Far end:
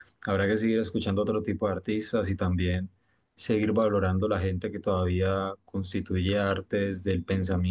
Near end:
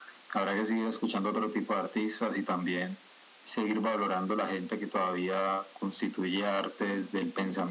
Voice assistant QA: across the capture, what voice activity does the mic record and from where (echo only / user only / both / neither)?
echo only